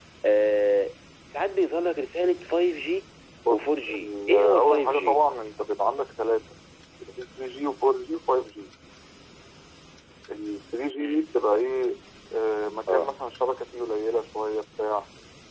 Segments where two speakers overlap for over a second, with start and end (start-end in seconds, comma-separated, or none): 3.5-5.2